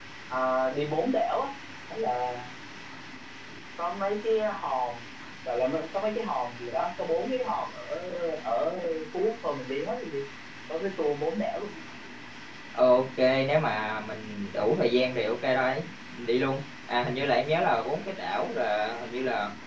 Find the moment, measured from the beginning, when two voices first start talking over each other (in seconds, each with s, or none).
none